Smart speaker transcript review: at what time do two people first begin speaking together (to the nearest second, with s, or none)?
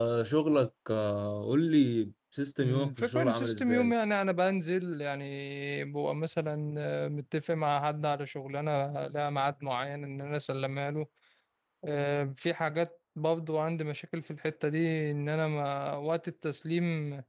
3 s